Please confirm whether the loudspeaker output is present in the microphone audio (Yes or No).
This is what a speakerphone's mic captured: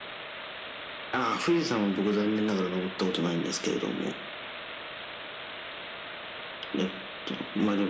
Yes